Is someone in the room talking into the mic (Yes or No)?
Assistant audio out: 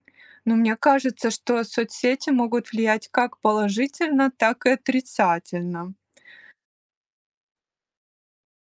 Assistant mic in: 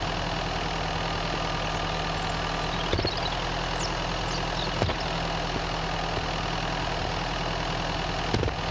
No